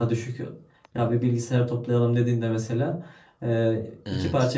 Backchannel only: Yes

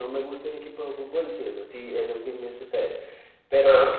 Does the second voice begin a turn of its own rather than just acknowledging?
No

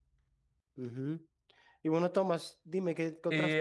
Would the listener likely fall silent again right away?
Yes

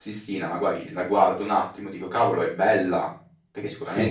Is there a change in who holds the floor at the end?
No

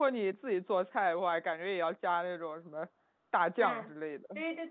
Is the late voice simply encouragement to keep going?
No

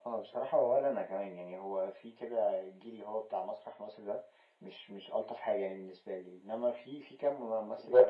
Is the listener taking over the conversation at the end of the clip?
No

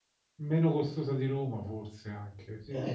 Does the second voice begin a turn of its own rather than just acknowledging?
Yes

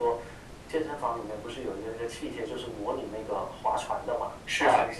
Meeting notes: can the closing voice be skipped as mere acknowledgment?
No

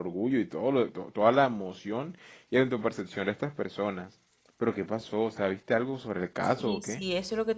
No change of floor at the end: No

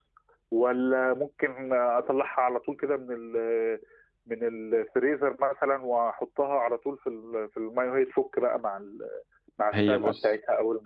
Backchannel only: No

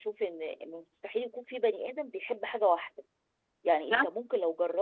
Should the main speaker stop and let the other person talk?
No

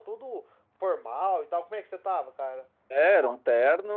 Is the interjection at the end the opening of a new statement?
Yes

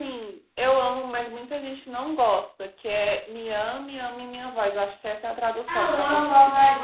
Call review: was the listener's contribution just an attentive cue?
No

